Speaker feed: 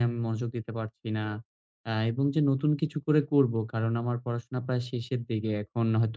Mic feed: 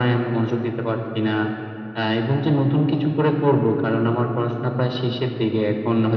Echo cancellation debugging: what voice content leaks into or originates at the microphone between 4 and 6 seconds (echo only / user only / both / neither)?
echo only